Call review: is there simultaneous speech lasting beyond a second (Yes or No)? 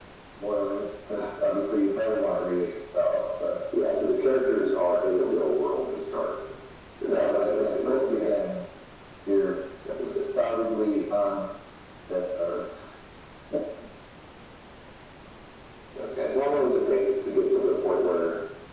Yes